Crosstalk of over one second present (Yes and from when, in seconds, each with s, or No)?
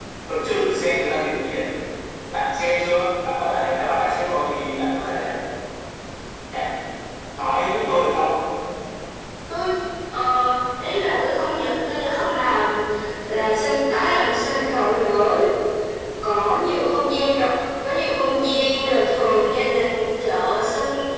No